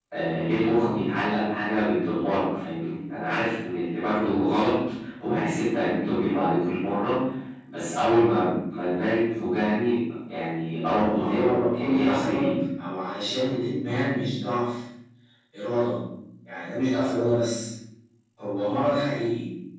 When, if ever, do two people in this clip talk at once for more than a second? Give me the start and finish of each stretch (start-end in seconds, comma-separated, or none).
11.1-12.5